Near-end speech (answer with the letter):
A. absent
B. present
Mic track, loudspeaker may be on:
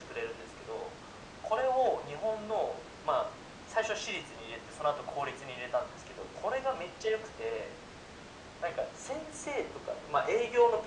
A